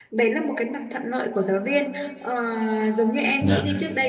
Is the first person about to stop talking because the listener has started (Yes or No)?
No